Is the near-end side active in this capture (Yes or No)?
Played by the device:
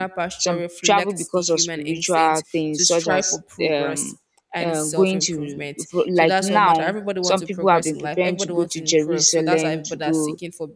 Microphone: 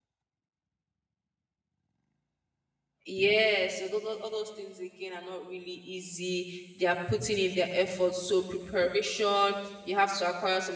Yes